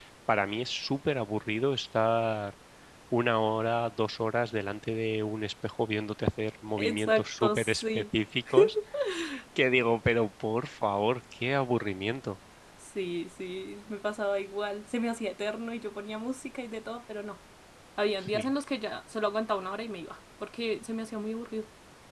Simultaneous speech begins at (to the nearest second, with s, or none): 7 s